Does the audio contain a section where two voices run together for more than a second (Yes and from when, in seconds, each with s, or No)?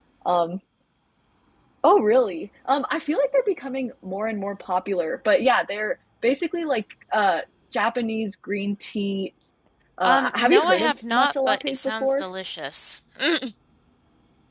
Yes, from 10.0 s